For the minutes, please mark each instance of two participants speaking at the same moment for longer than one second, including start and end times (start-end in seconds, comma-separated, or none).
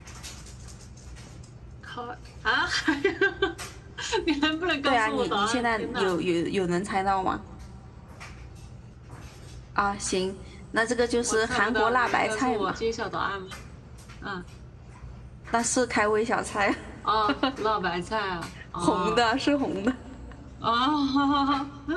4.8-6.1, 11.2-12.8